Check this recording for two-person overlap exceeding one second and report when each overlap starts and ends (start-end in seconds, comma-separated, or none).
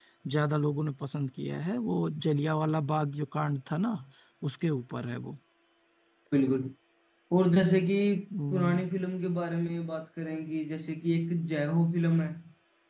none